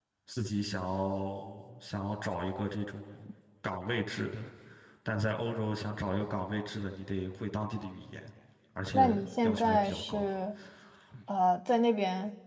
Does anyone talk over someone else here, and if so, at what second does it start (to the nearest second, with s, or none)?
9 s